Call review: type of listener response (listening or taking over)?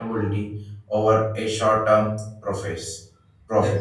taking over